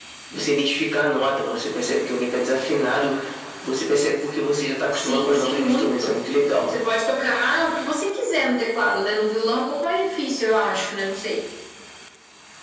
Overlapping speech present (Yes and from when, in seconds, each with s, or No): Yes, from 4.9 s